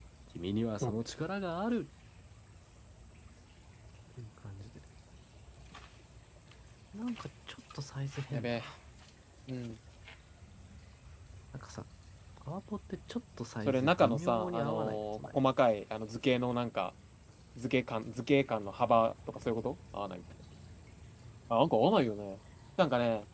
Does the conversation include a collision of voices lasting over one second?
Yes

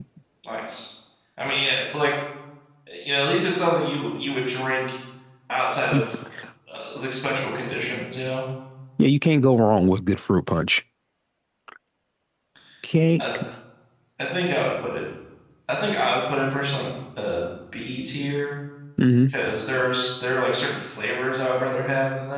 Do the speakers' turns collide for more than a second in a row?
No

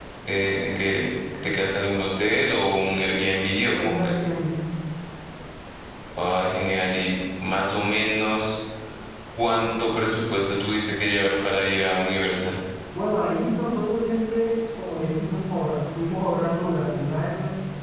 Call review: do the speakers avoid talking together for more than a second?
Yes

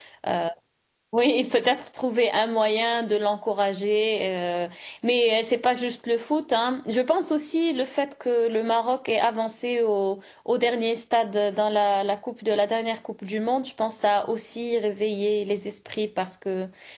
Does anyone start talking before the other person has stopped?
No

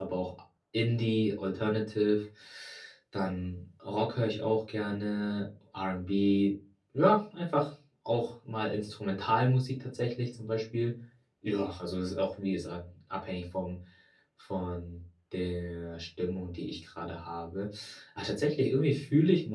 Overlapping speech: No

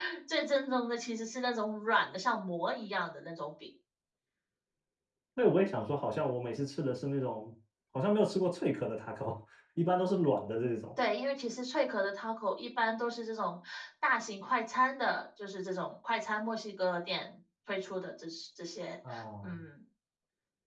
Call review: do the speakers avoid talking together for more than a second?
Yes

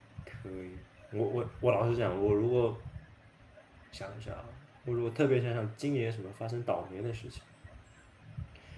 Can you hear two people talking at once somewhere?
No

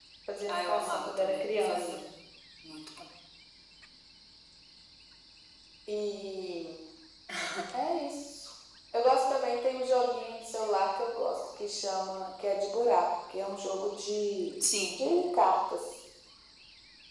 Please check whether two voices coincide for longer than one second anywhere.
Yes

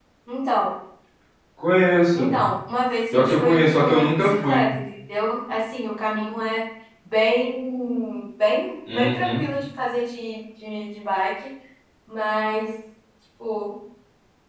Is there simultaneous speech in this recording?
Yes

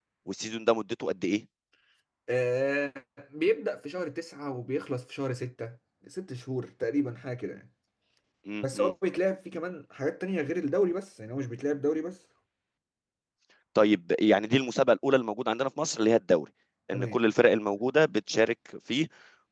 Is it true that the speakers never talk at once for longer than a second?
Yes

